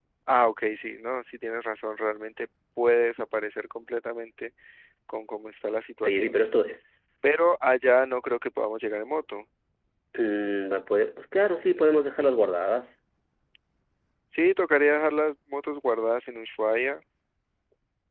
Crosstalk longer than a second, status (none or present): none